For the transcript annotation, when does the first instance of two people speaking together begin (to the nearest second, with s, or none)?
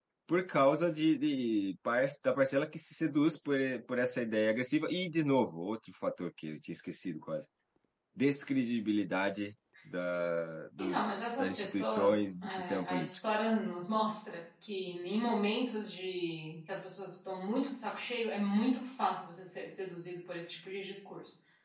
11 s